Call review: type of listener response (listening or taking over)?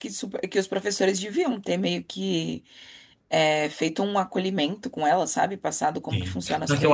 taking over